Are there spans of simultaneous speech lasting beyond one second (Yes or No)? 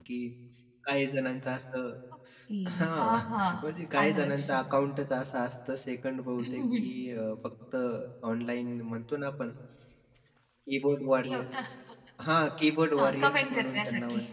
Yes